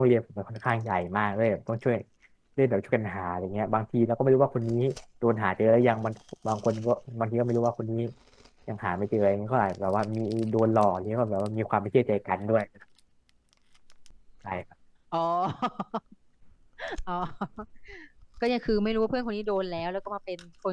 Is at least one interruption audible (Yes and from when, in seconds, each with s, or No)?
No